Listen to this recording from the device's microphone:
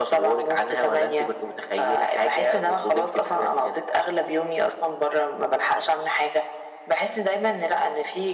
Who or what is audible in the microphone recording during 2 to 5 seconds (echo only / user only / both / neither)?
echo only